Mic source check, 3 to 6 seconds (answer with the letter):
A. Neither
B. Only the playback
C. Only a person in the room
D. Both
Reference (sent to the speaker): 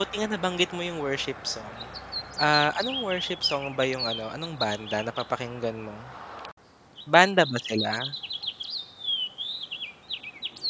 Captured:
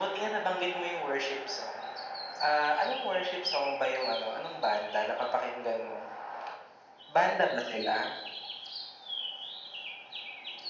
B